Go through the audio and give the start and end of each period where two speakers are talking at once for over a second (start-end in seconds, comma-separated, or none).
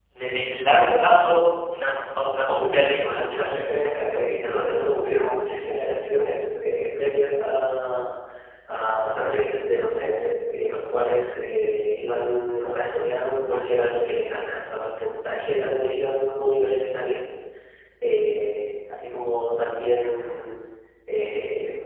2.6-5.2